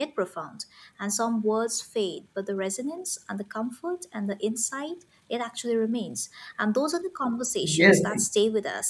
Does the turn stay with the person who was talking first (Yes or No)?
Yes